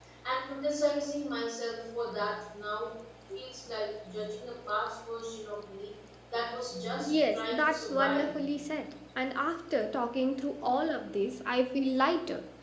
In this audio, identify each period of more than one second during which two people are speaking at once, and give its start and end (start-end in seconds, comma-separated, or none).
7.0-8.3